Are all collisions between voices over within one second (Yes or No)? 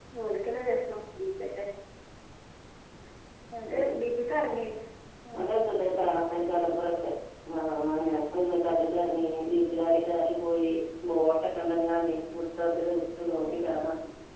Yes